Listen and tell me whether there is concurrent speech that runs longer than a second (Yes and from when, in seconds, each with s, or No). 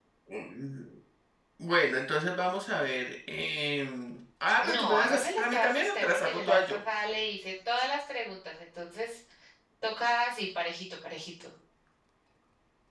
Yes, from 4.6 s